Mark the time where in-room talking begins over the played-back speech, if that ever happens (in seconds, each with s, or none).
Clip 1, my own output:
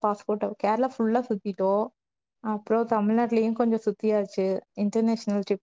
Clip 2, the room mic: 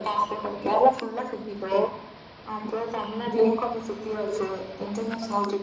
none